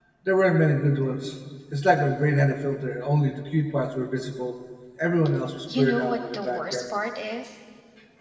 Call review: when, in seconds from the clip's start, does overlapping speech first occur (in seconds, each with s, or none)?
5.8 s